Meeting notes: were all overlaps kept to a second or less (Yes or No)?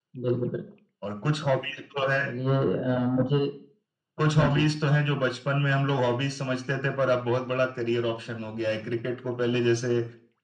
Yes